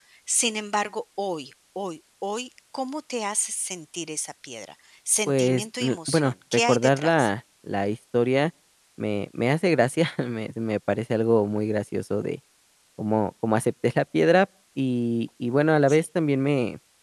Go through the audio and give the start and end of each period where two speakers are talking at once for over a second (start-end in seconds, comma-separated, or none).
5.3-7.3